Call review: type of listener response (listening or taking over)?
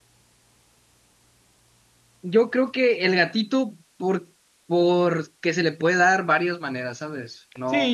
taking over